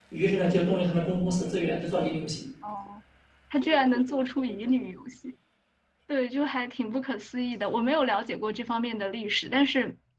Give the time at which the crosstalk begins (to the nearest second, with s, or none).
none